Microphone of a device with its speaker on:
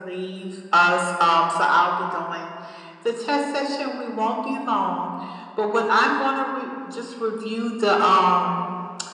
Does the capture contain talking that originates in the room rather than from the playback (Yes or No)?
No